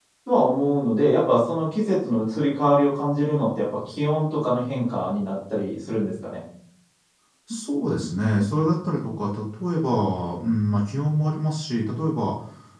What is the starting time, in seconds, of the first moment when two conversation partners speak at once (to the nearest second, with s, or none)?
none